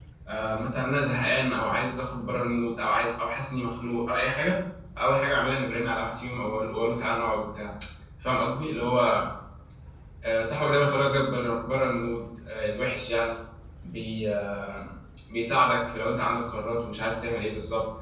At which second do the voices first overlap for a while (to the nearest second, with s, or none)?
none